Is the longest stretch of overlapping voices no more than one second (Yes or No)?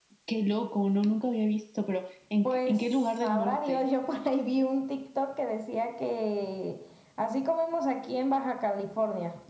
No